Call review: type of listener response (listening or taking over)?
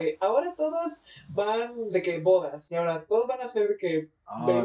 taking over